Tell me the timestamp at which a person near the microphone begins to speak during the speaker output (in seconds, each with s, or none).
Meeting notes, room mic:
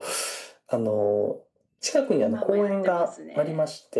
2.1 s